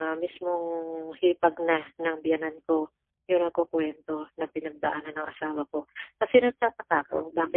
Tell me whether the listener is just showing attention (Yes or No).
Yes